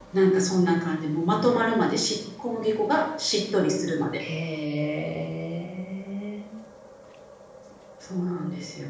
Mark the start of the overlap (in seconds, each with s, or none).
none